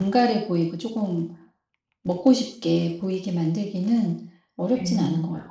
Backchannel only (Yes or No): No